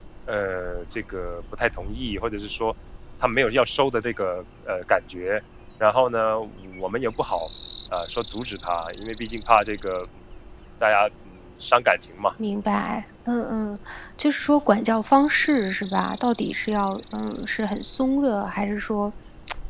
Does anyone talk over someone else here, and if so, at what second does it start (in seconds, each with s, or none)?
none